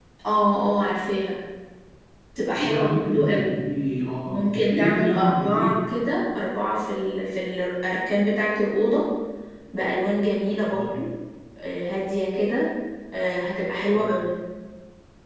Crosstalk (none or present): present